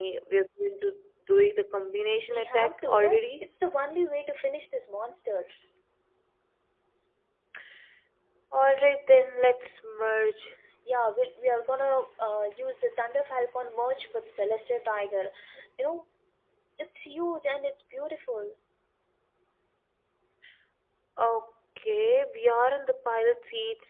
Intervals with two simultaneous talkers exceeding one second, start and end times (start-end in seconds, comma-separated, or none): 2.2-3.5